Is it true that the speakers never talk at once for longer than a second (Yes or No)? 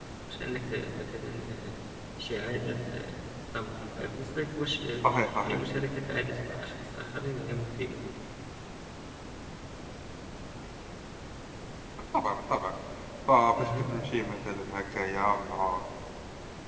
Yes